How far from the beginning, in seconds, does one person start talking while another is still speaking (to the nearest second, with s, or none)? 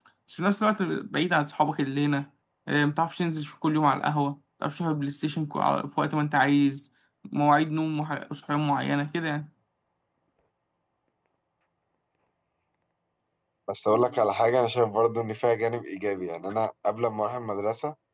none